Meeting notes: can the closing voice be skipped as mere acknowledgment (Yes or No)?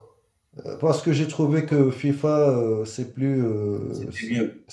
Yes